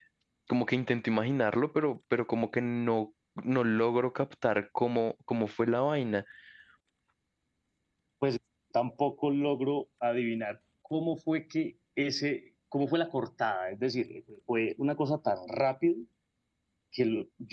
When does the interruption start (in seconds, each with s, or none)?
none